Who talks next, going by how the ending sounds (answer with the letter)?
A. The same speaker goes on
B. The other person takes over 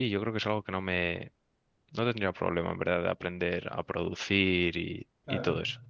B